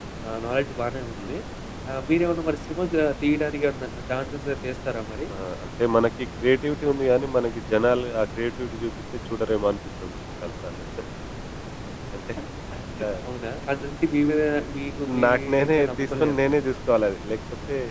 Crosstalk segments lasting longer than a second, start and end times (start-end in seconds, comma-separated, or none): 15.2-16.5